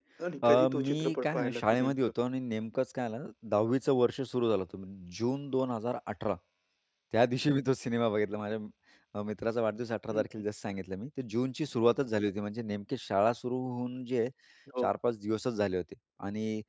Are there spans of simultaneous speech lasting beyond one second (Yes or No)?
Yes